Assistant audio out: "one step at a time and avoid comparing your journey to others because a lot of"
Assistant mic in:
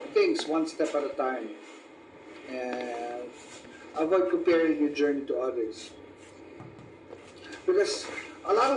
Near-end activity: none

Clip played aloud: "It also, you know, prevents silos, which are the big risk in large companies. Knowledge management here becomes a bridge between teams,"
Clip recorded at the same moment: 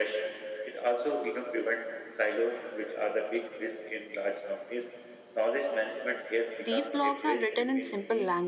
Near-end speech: present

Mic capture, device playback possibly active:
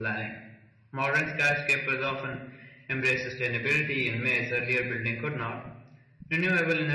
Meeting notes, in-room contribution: none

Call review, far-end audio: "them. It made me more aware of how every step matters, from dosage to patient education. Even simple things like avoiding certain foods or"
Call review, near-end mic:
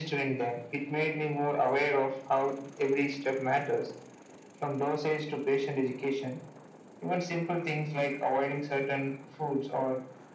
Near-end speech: none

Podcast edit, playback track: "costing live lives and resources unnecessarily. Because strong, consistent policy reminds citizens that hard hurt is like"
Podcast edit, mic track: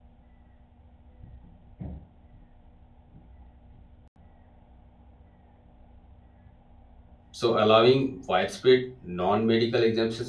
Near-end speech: present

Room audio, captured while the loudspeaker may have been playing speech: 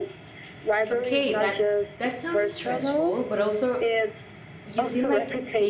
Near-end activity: present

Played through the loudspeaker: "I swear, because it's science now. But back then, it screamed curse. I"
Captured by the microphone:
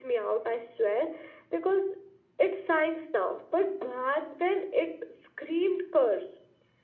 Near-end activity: none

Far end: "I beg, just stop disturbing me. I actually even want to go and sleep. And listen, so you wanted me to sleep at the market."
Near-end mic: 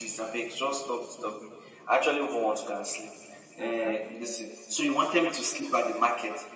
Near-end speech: present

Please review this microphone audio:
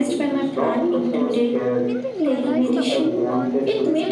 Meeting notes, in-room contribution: present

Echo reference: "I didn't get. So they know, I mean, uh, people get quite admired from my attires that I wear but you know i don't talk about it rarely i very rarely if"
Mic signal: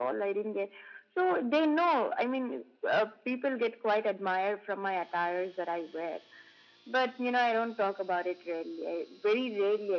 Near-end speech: none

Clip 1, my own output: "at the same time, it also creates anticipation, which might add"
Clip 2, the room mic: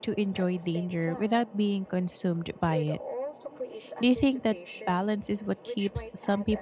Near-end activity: present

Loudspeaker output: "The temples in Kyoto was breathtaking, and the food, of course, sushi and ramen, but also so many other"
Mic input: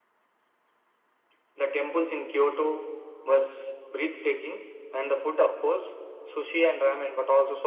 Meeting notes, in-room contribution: none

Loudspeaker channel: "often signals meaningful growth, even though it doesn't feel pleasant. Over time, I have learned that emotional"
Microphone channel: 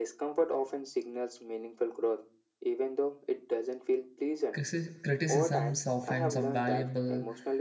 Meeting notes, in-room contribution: present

